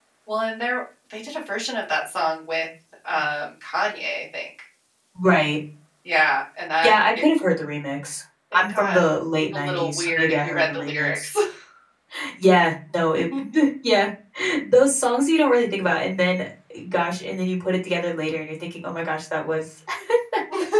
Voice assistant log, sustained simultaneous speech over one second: present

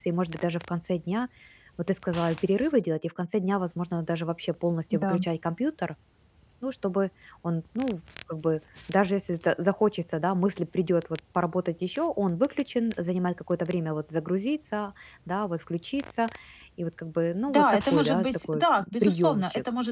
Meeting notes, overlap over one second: present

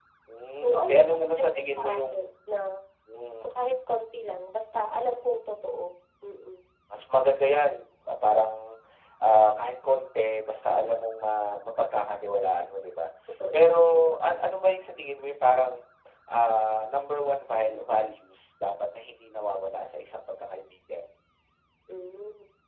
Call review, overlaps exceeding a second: present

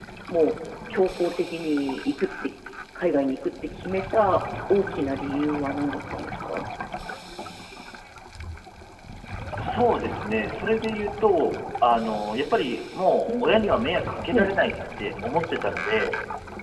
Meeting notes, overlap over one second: none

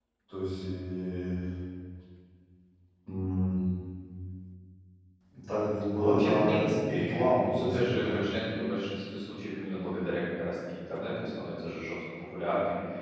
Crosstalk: present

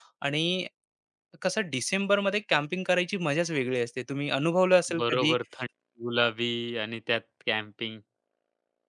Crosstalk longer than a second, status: none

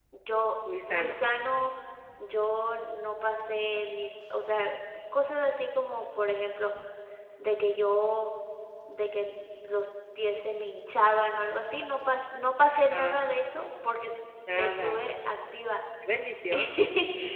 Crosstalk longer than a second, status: none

